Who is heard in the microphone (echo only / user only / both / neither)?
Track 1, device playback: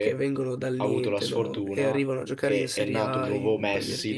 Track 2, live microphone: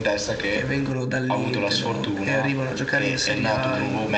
echo only